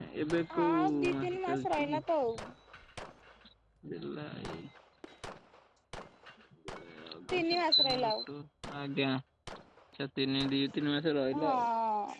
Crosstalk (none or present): present